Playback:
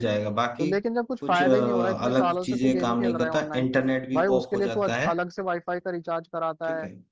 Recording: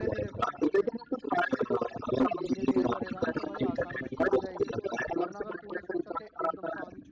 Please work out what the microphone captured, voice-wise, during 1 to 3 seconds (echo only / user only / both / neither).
both